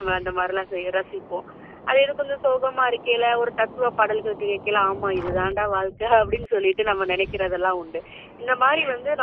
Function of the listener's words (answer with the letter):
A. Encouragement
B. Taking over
A